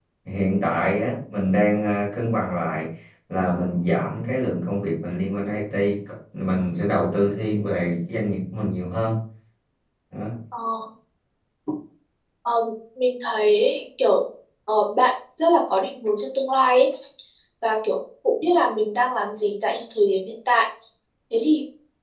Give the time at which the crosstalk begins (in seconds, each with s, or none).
none